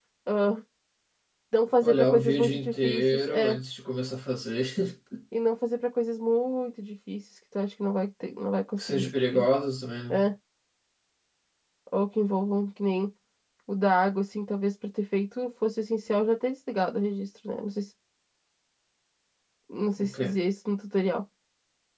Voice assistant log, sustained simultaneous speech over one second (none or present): present